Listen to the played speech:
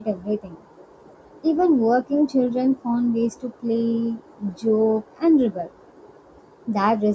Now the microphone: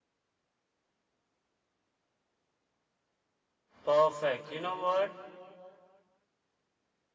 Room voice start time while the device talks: 3.8 s

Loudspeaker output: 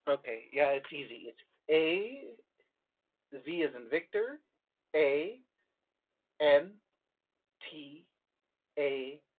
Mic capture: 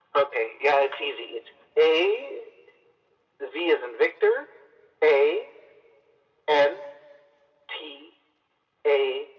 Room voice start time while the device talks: none

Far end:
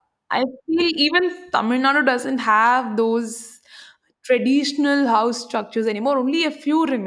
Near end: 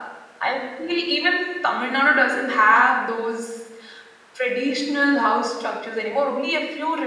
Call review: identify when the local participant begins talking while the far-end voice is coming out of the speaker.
6.0 s

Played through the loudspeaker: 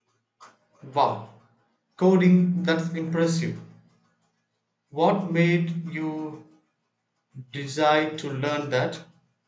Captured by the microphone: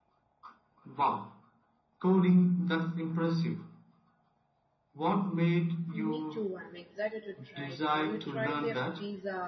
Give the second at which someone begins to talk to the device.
5.9 s

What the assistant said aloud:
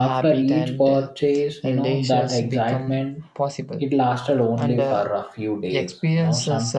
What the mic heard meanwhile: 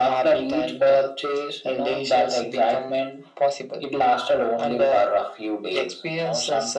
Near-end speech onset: none

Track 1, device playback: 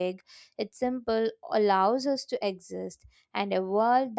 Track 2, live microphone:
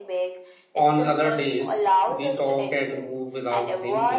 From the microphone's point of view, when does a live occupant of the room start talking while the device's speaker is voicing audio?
0.7 s

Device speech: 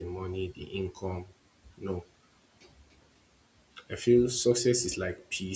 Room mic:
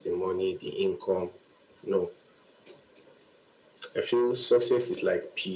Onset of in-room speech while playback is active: none

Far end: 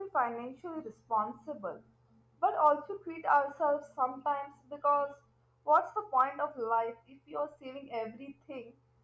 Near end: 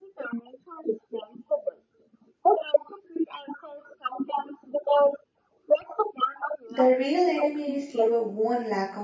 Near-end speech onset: 6.7 s

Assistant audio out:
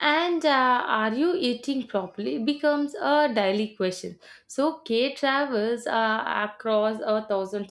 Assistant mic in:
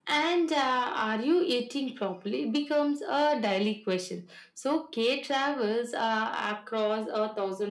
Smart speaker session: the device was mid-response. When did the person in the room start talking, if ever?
none

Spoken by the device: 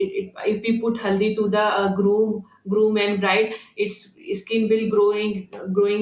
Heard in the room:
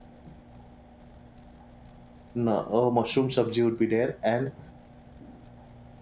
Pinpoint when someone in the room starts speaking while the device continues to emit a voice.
2.3 s

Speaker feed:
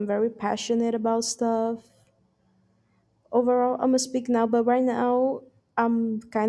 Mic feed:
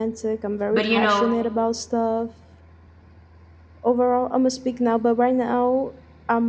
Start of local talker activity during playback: 0.7 s

